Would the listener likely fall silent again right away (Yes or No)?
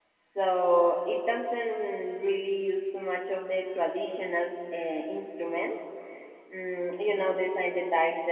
Yes